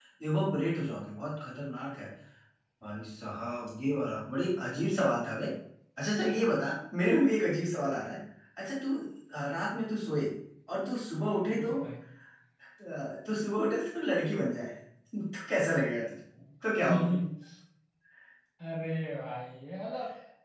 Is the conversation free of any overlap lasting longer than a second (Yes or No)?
Yes